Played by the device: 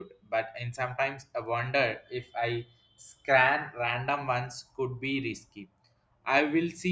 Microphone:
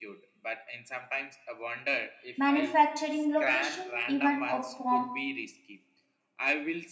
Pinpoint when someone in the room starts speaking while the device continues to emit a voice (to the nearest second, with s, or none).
2 s